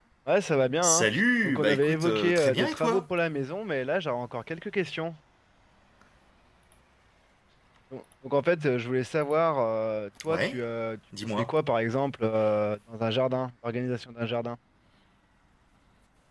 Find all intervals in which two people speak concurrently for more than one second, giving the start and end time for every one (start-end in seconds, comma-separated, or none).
1.4-3.1